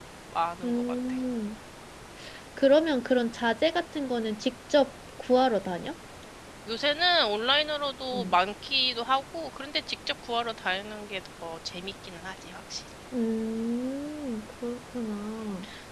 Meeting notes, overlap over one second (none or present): none